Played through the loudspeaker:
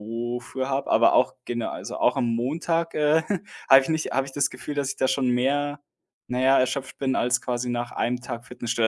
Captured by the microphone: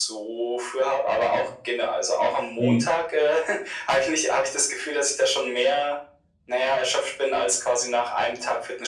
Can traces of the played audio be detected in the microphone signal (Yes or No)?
Yes